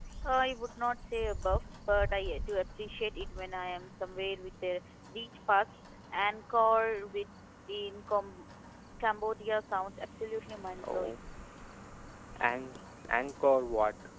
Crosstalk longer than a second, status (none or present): none